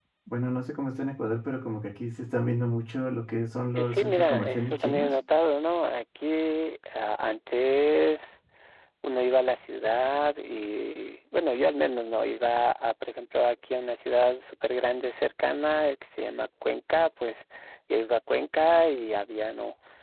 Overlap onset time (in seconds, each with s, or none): 3.8 s